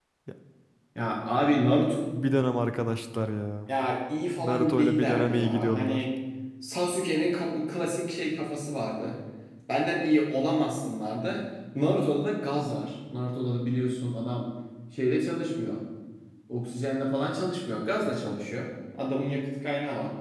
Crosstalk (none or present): present